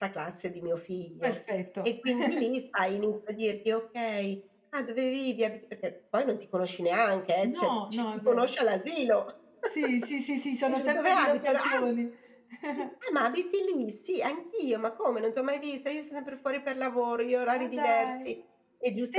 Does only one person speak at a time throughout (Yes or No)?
No